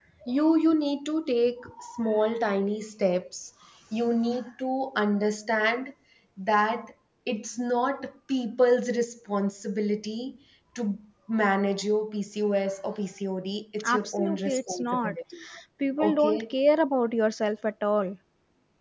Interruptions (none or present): present